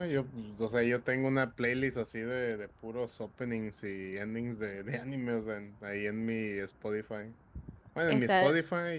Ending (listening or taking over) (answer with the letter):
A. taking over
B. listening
B